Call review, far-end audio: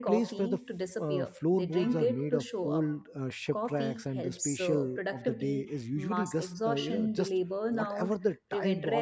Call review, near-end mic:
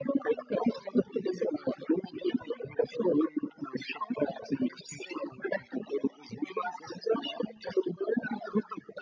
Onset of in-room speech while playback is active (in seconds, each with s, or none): none